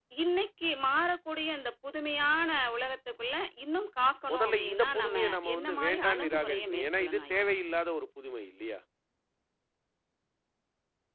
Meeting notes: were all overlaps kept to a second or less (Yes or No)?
No